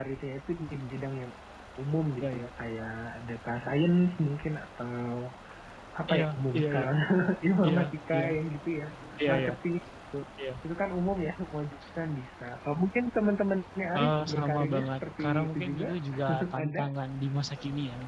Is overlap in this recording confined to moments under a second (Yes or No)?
No